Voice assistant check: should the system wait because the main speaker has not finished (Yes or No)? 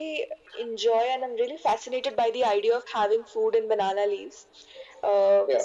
Yes